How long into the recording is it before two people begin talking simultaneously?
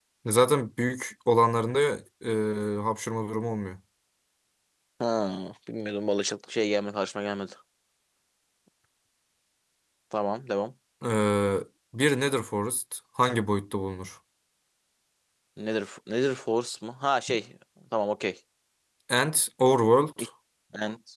none

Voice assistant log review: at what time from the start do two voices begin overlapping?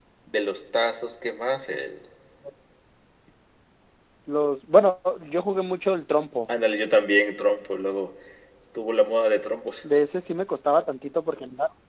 none

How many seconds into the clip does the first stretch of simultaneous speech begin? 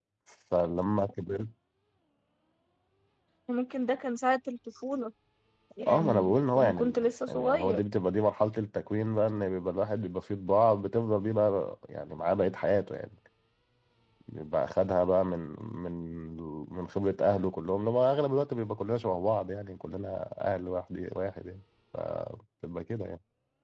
5.9 s

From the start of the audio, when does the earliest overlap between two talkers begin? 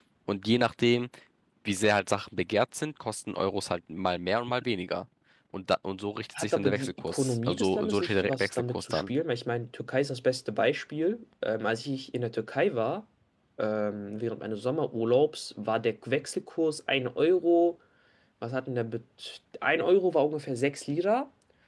6.4 s

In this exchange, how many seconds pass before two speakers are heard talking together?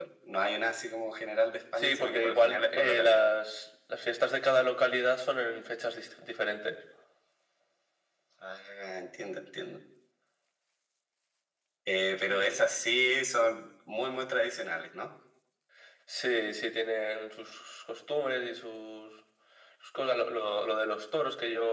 1.8 s

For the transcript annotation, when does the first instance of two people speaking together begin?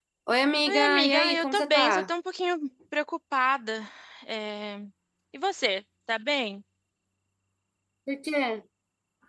0.7 s

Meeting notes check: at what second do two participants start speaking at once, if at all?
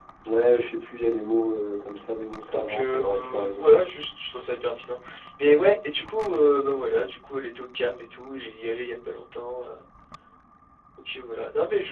2.5 s

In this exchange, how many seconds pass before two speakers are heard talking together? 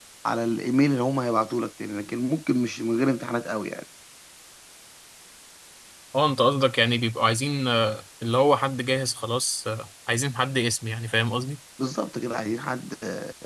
none

